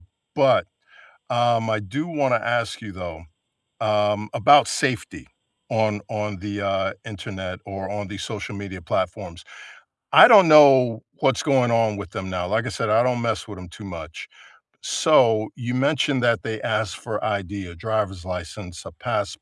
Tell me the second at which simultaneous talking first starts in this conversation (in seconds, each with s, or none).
none